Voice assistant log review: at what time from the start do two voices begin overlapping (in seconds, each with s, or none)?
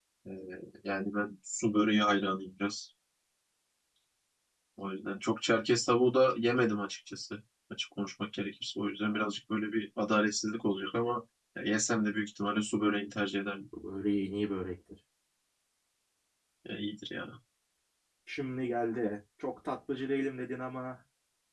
none